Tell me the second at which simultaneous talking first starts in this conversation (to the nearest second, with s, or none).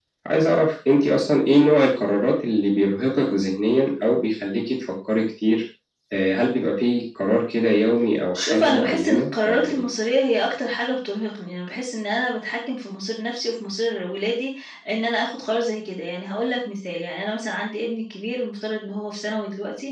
8 s